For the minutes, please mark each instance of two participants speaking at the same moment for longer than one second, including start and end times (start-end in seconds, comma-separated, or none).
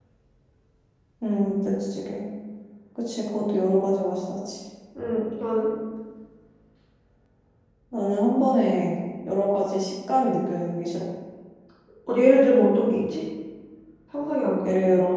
none